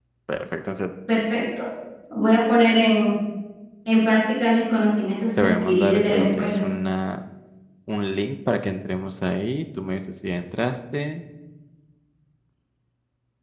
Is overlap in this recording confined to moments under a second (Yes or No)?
No